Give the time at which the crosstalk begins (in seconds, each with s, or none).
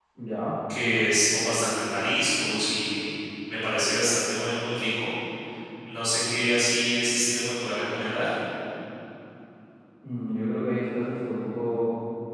none